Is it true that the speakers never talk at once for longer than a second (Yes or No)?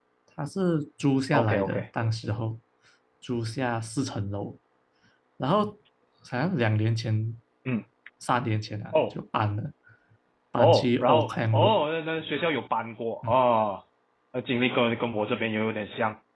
No